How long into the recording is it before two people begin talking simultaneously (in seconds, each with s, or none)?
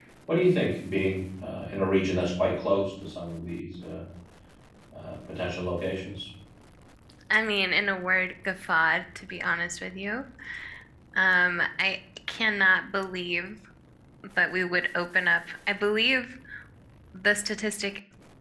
none